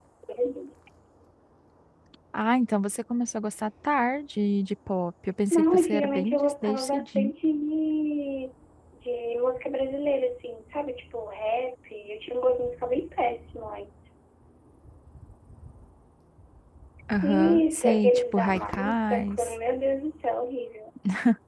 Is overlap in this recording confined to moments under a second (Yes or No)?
No